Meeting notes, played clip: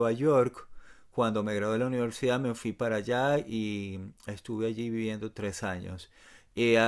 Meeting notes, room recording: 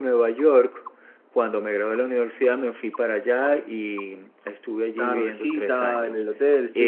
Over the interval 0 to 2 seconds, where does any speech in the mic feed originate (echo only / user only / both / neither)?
echo only